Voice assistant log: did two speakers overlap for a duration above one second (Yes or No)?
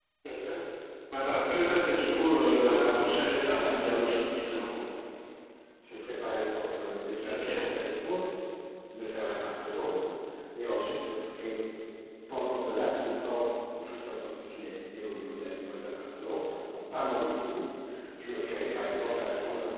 Yes